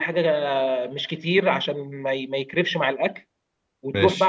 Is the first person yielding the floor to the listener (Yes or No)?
No